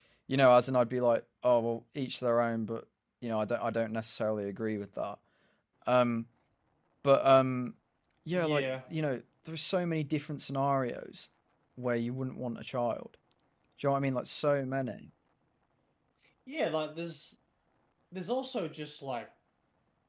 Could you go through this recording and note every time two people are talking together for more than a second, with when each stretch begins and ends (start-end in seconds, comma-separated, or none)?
none